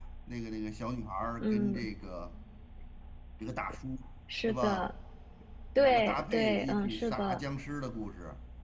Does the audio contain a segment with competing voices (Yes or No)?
Yes